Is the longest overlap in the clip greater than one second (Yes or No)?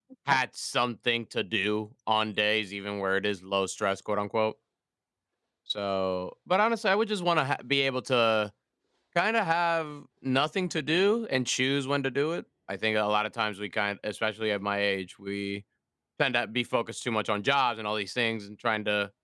No